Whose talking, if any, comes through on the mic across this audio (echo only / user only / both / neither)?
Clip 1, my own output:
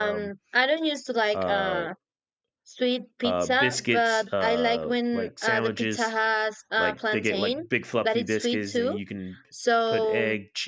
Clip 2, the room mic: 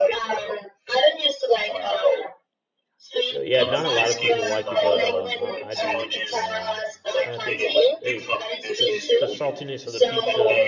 both